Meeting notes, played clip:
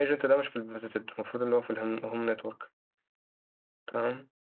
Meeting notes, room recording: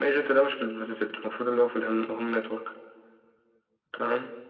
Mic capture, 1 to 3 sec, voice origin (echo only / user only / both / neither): echo only